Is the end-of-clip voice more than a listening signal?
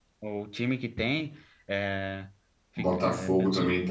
Yes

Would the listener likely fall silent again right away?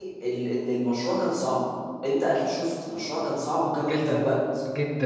No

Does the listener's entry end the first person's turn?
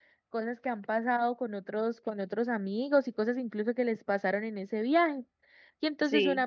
No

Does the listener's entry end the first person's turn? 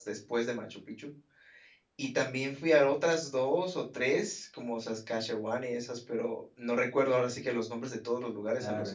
Yes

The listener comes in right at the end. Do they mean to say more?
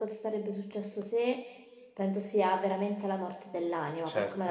No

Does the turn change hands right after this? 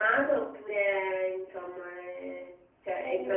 Yes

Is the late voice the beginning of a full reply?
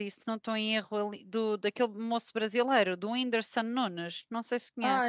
Yes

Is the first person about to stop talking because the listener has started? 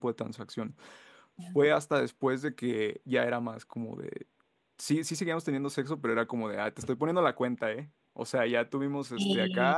No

